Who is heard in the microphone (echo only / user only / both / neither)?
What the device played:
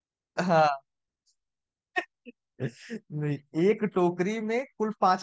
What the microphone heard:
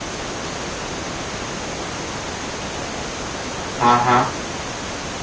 user only